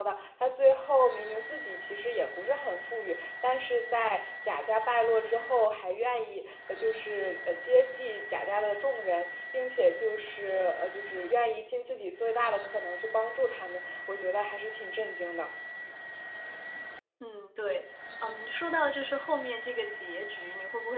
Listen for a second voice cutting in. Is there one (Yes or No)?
No